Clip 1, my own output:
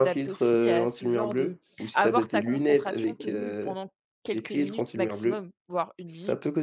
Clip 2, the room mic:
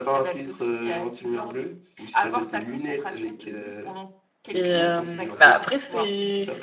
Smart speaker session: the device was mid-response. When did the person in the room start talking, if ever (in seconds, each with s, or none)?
4.5 s